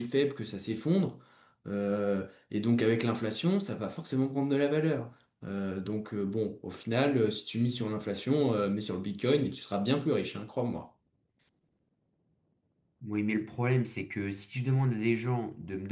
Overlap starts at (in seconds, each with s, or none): none